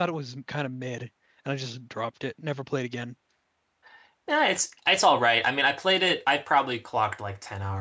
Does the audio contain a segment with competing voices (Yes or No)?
No